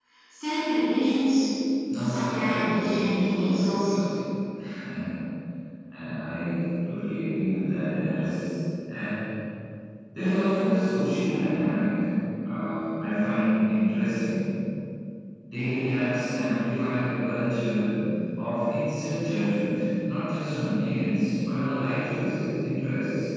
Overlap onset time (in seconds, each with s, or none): 2.0 s